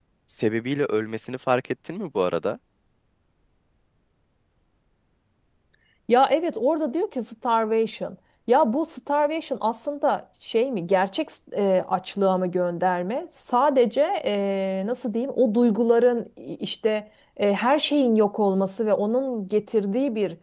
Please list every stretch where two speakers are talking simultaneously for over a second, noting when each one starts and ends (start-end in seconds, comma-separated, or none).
none